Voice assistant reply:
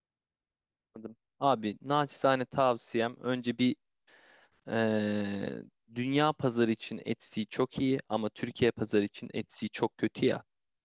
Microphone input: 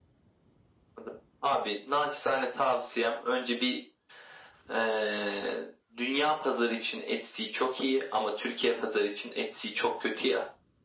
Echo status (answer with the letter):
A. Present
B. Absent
A